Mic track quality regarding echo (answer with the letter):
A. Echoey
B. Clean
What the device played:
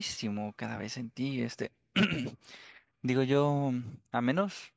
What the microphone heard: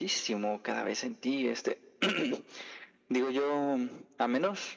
A